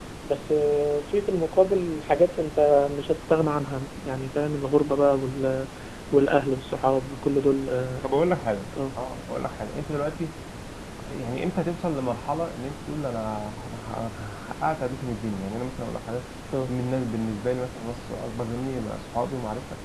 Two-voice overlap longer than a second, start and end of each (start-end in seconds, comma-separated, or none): none